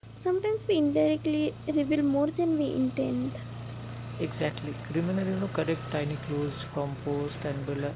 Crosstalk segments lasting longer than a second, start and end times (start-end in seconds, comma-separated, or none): none